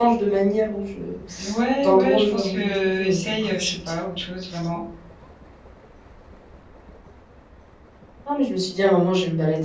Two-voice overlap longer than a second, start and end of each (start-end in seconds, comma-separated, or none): 1.8-3.9